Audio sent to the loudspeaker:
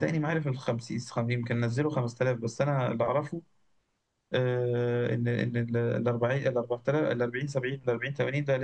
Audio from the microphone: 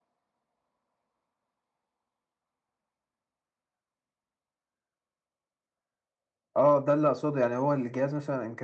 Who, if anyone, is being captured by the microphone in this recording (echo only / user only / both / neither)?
user only